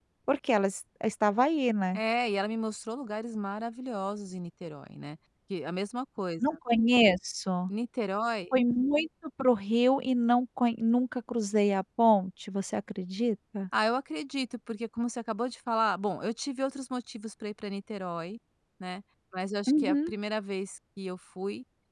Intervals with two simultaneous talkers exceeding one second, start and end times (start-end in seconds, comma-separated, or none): none